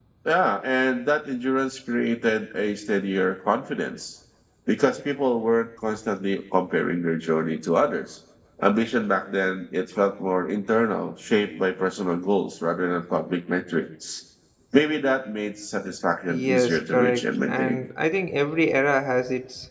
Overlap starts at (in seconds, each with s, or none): 16.3 s